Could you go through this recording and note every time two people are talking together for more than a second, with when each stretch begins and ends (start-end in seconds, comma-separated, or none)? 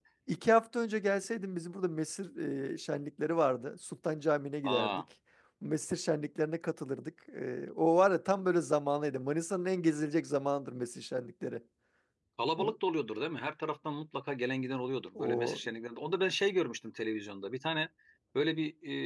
none